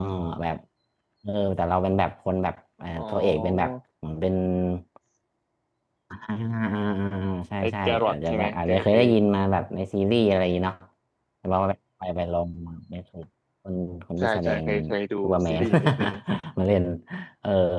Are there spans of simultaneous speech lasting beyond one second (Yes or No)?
Yes